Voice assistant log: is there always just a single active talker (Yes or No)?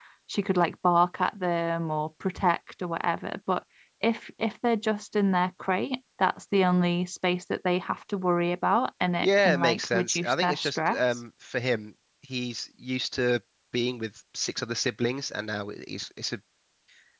No